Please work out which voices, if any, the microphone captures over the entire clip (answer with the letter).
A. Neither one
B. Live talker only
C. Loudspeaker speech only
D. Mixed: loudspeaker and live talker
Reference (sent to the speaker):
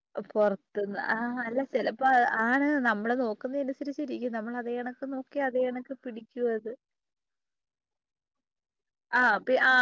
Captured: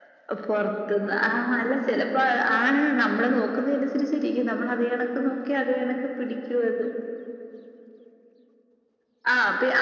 C